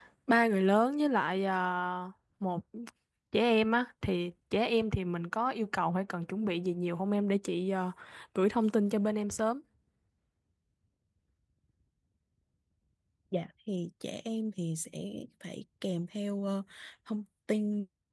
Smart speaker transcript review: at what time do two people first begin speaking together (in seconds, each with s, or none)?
none